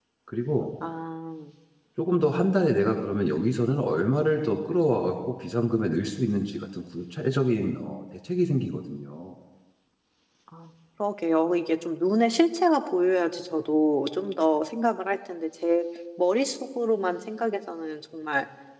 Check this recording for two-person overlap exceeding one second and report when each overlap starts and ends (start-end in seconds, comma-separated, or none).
none